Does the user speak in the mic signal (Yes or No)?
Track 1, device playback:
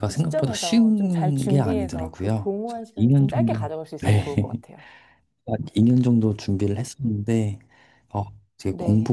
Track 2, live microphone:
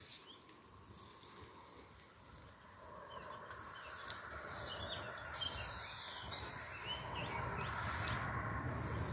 No